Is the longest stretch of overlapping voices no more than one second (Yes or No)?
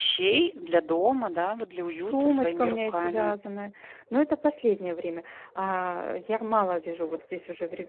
No